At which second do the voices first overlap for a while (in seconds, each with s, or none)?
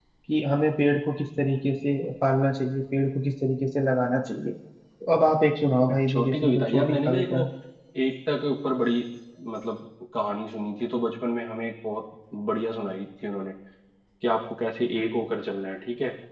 6.1 s